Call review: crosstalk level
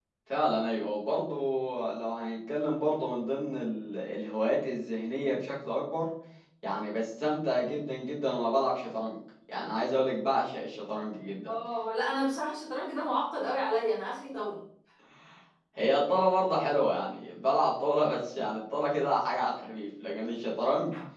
none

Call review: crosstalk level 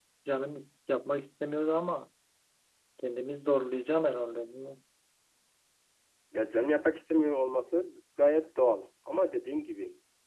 none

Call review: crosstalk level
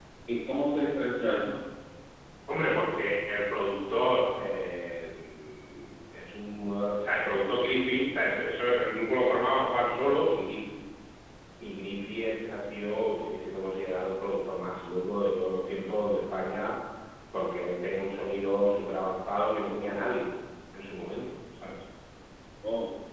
none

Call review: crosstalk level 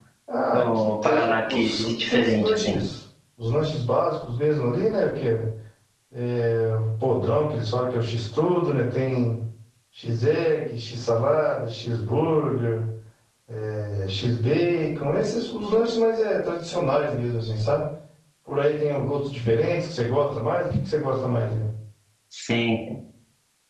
present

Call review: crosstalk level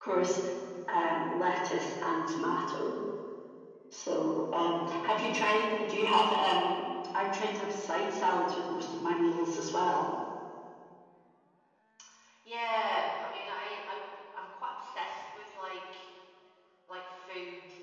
none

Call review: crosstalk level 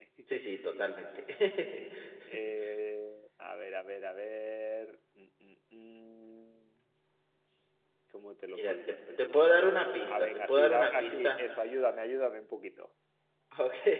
present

